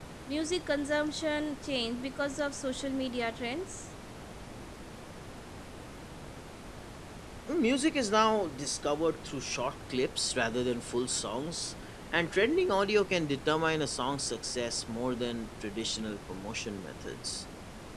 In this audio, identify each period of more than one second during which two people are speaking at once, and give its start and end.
none

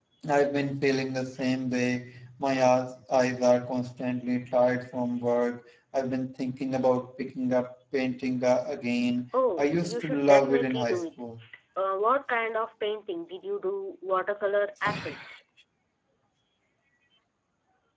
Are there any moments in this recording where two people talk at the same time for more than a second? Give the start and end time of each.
9.6-11.2

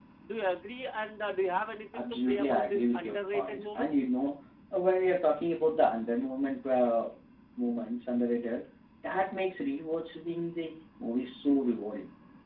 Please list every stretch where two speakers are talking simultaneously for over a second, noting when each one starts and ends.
1.9-4.0

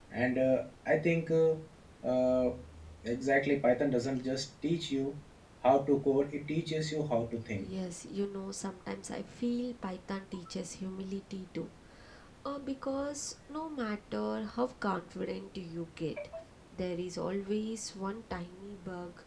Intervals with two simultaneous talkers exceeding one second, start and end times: none

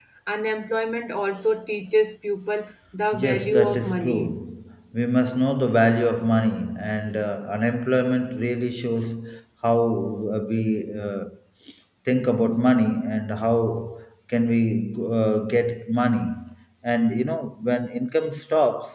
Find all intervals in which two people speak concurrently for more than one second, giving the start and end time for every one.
3.1-4.4

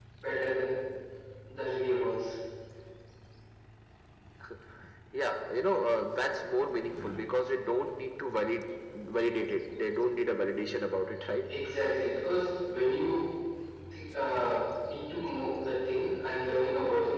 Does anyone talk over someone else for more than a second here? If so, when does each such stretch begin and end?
none

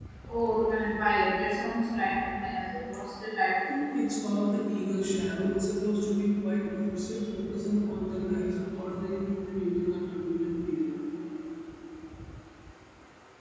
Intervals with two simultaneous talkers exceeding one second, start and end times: none

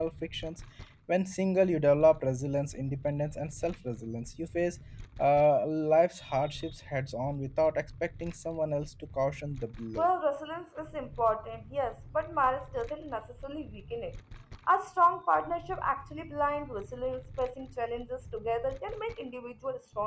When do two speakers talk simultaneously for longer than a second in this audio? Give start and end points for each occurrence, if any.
none

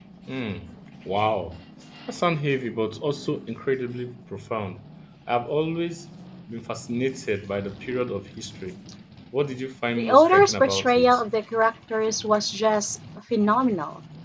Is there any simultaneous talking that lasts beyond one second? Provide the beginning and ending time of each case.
10.0-11.2

